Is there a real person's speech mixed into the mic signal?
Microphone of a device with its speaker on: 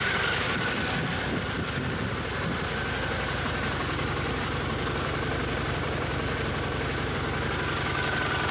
No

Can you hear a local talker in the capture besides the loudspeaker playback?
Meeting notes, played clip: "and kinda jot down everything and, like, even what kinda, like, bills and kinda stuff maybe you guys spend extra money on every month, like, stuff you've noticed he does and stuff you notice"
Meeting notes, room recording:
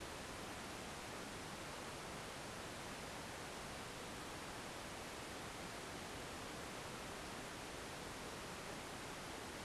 No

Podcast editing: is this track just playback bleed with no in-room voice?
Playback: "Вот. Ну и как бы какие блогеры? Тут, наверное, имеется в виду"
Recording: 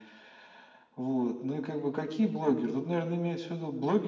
Yes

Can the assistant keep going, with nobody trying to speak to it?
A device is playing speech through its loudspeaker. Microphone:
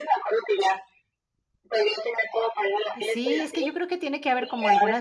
No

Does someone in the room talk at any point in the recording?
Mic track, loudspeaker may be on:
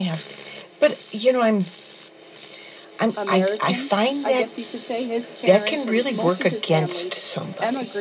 Yes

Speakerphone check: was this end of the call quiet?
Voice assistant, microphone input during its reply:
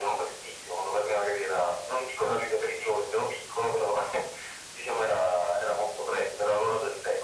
Yes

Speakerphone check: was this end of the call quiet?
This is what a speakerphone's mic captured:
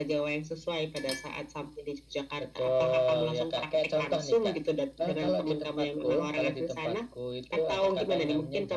Yes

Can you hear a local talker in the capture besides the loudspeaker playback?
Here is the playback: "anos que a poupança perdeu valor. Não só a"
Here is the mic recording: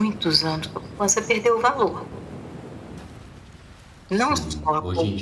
Yes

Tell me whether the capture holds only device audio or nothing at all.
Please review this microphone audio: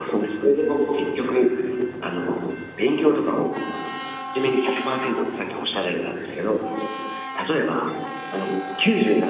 Yes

